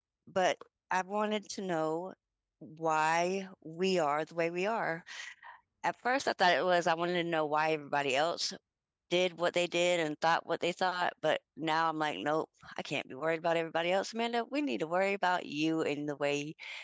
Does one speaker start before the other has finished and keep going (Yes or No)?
No